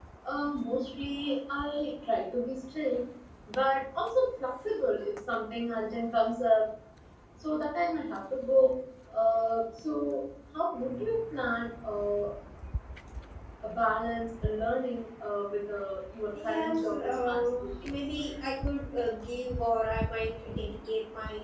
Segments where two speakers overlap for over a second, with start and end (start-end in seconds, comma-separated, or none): 16.4-17.9